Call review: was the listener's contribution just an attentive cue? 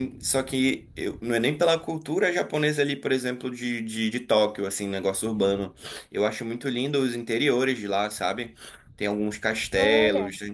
Yes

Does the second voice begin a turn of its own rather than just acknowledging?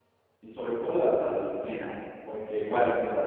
No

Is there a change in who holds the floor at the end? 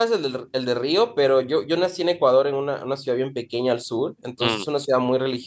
No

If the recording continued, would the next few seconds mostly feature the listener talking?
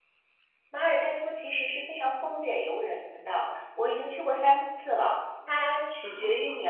No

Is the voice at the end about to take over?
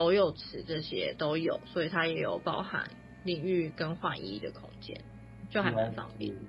Yes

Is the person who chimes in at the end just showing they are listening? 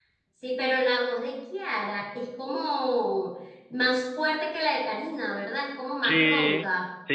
No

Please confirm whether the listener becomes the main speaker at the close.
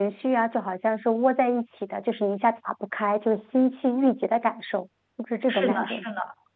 Yes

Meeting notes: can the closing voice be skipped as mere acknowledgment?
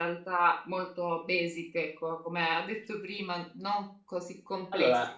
Yes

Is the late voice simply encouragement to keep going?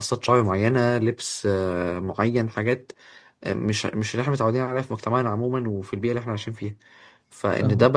Yes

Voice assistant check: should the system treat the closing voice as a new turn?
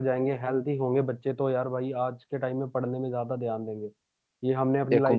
No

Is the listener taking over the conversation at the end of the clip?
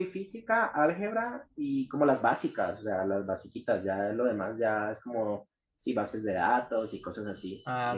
Yes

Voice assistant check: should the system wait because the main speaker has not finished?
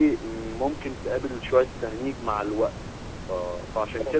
Yes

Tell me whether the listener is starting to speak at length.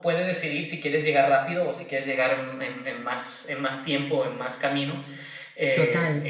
No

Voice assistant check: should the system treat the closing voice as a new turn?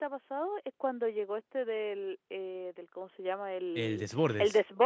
No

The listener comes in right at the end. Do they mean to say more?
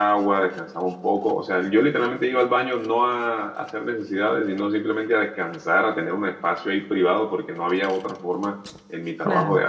No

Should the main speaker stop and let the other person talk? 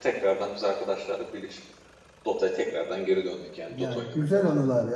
Yes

